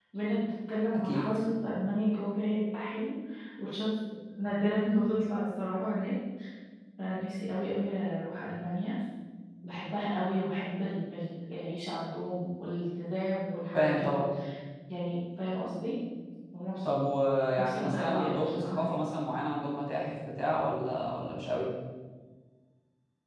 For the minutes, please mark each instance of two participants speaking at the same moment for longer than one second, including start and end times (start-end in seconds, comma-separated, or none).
17.6-18.9